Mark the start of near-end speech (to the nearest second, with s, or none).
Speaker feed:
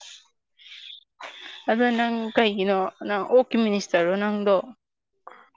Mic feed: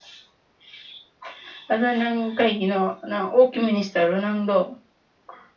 none